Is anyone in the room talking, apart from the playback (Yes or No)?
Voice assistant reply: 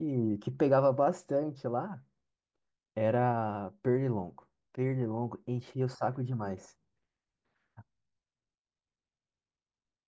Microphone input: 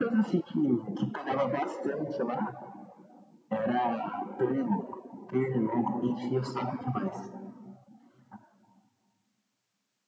No